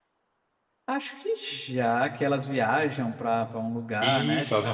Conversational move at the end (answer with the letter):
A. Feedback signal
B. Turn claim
B